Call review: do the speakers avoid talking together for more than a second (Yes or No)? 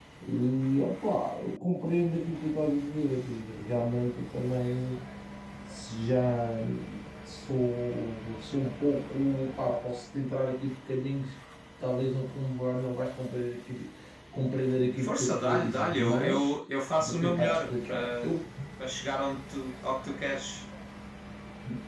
No